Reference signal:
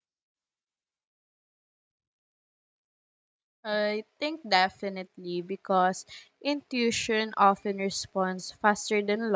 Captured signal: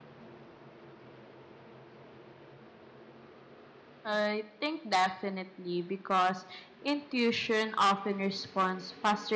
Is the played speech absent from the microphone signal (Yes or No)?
No